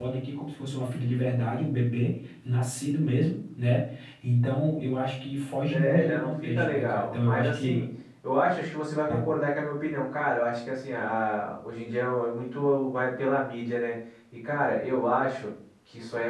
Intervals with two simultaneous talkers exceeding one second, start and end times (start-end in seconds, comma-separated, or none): 5.7-7.8